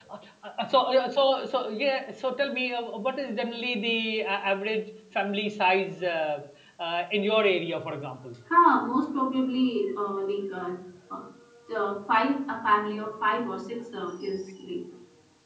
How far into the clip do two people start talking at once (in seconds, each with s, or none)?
none